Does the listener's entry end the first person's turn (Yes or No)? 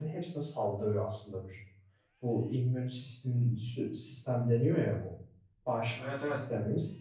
No